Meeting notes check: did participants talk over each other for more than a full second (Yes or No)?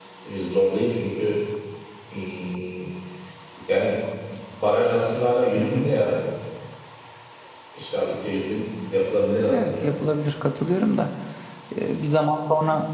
No